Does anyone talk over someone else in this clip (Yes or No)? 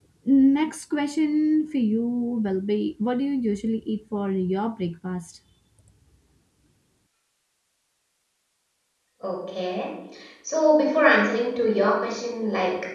No